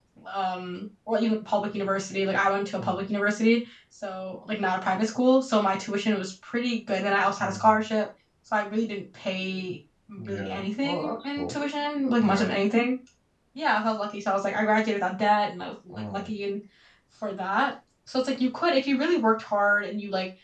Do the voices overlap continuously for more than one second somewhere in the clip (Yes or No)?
Yes